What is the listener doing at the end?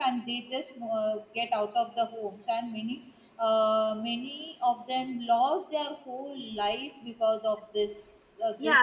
taking over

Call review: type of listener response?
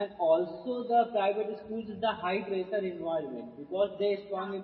listening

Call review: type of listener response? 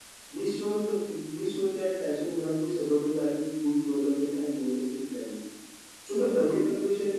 listening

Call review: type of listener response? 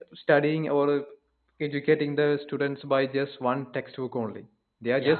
listening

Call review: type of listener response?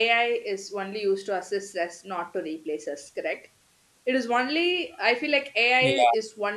listening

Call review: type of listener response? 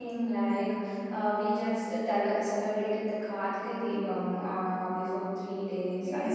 taking over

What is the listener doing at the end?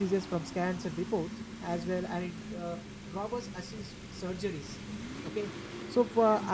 listening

